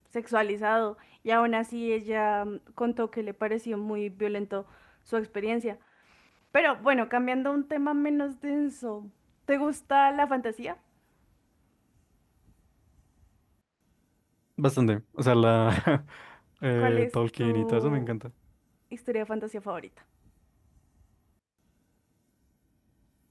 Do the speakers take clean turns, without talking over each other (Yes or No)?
No